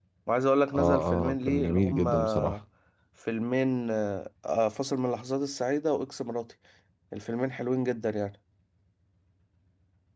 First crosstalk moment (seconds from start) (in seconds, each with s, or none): 0.7 s